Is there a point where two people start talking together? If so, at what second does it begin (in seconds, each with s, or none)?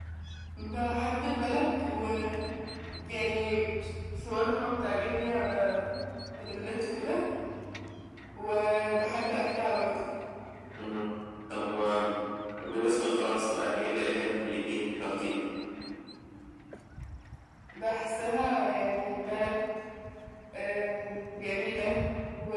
none